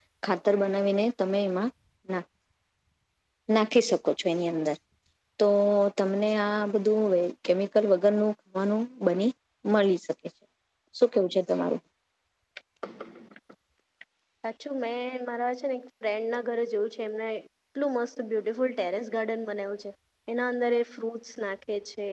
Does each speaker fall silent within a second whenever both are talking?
Yes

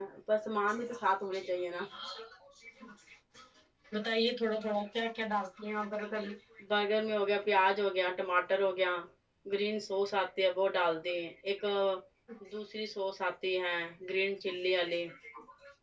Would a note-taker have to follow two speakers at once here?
No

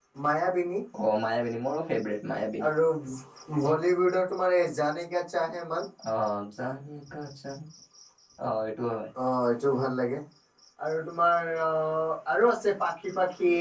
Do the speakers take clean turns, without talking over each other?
Yes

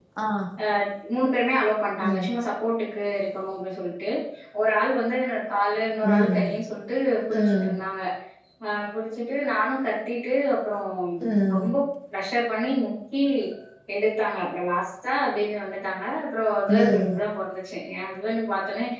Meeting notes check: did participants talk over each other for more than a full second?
No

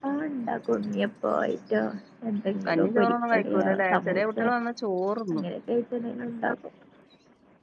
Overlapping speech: Yes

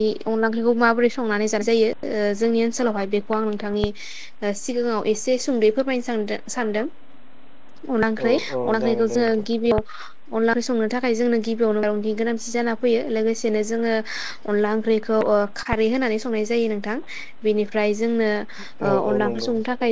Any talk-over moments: Yes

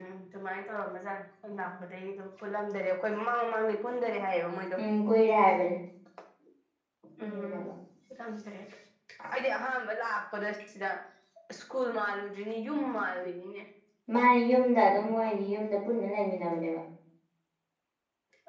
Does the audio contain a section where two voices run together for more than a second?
No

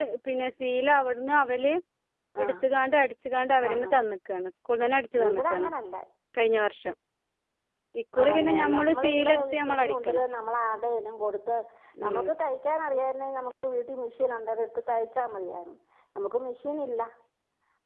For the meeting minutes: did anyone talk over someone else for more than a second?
Yes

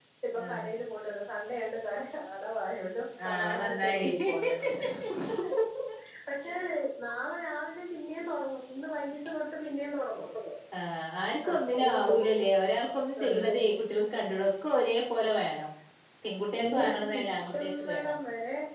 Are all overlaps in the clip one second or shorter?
No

